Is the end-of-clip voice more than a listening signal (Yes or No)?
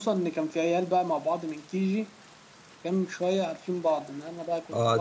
Yes